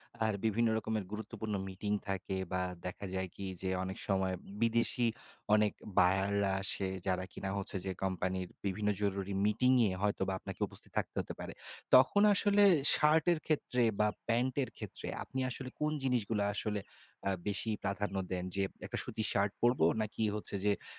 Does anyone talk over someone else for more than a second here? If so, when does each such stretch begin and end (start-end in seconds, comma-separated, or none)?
none